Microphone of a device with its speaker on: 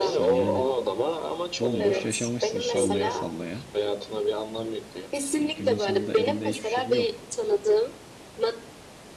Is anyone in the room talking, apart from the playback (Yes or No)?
Yes